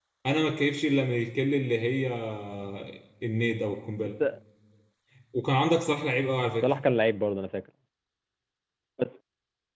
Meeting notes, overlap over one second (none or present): none